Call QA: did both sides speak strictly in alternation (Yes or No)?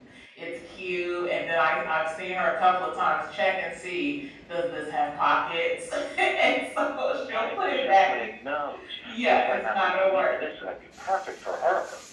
No